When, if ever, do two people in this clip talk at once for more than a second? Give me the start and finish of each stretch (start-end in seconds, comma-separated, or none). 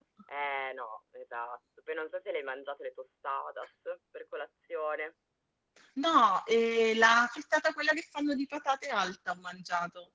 none